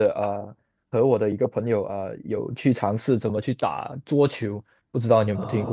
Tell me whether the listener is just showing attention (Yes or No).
No